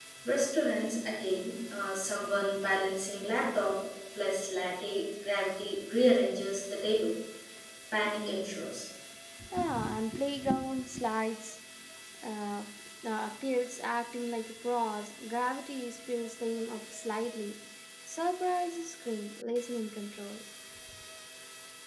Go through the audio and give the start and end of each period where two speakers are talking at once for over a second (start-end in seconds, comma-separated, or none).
none